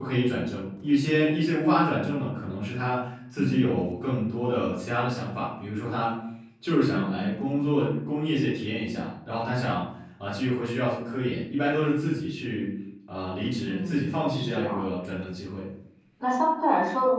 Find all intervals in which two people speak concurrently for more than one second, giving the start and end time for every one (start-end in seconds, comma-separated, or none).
13.7-14.9